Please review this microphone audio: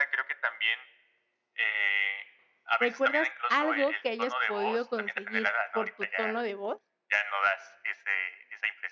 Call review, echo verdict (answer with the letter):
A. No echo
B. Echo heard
B